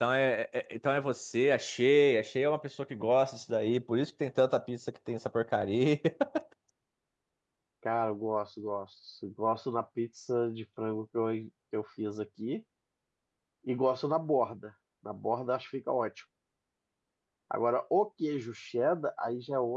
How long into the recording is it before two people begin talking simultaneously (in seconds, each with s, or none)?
none